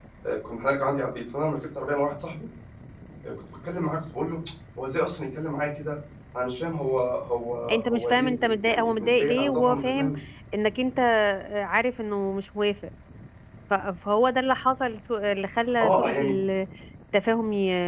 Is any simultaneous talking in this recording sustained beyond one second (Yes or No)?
Yes